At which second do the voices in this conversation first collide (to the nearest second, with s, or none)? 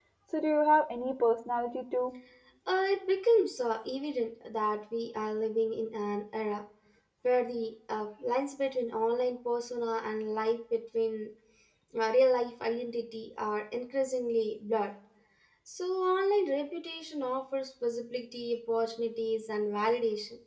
none